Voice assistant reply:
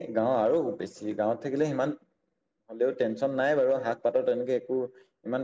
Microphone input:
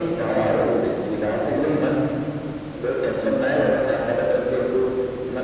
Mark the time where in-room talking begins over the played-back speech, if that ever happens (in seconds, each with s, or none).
none